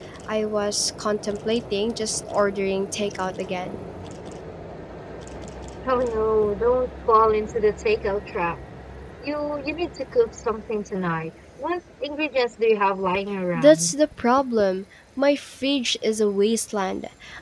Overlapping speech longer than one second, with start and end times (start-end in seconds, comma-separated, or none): none